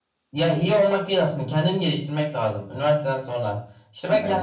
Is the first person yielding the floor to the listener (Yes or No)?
No